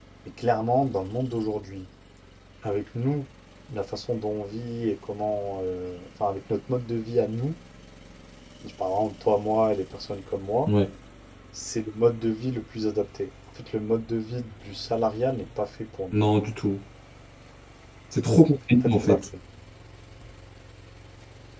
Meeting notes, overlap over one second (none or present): none